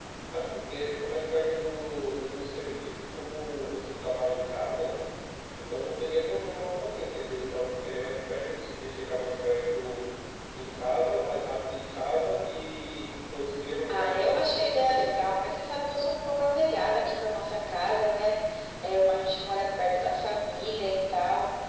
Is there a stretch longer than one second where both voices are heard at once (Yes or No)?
Yes